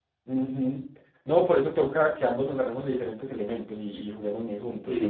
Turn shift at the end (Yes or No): Yes